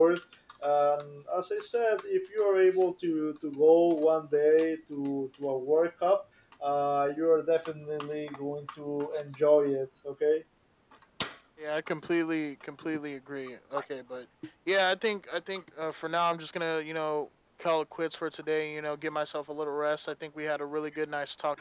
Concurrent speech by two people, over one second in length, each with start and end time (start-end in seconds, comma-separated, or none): none